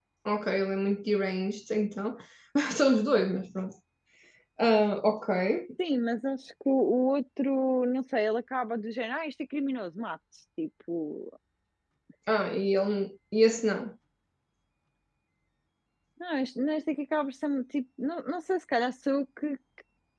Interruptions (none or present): none